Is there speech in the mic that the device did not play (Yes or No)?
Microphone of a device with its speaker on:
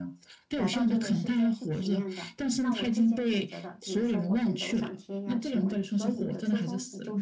Yes